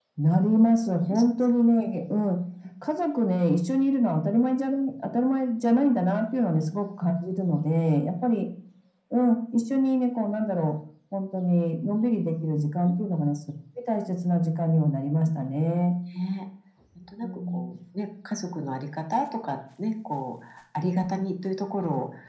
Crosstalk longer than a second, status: none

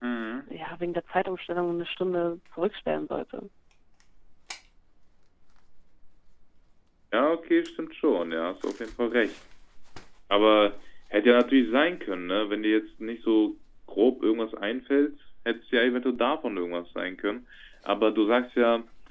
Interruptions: none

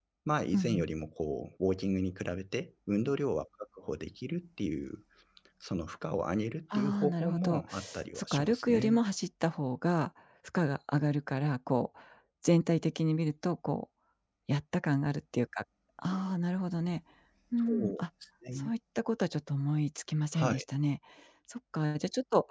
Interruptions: present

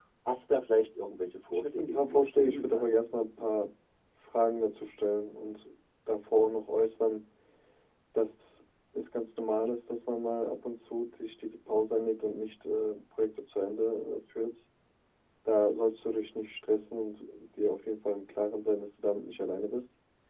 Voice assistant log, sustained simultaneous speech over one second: present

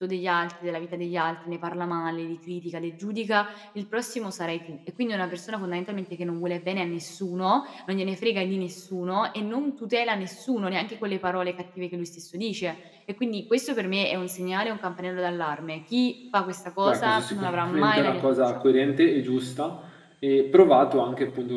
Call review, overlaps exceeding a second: present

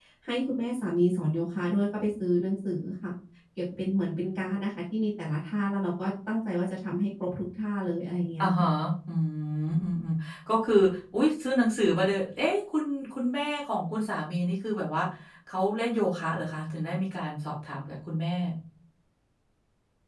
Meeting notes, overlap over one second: none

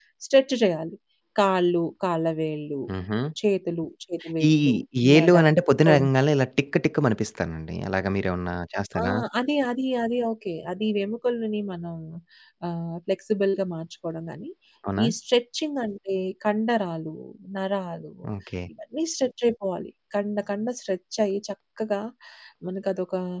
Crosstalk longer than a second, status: none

